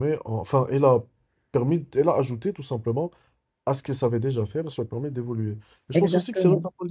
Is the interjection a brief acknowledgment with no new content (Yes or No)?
Yes